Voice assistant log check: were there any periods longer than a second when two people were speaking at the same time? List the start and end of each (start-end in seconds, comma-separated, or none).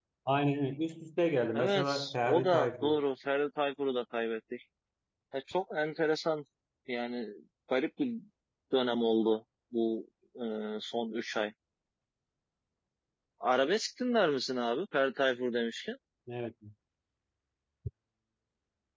1.5-3.0